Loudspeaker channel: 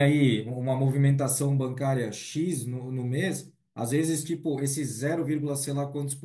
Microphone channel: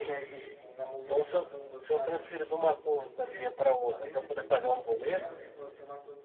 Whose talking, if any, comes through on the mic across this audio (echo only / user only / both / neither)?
both